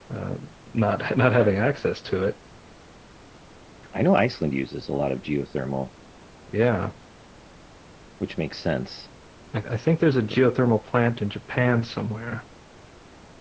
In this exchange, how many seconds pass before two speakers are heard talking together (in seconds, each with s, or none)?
none